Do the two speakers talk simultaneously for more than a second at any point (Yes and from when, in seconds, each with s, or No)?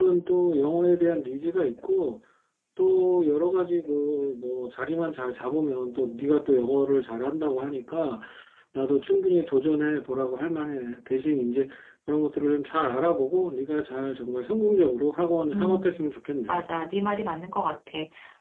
No